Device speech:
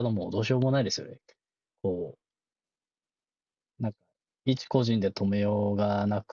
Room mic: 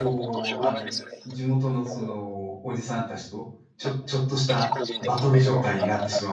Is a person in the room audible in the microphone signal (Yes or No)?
Yes